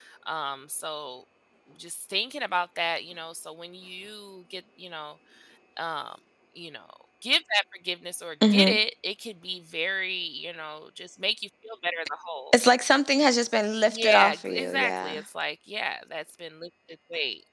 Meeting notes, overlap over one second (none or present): present